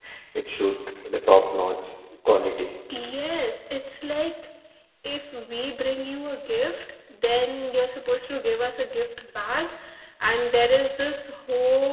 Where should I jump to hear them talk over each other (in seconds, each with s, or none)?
none